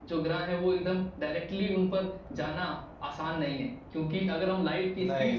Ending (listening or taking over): listening